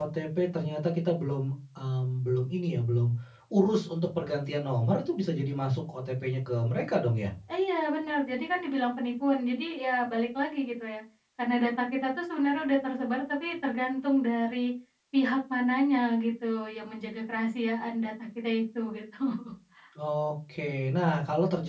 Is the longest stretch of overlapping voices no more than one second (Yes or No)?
Yes